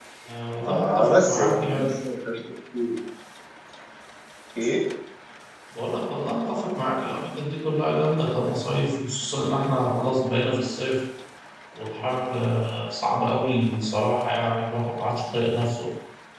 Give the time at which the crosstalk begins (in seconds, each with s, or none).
0.6 s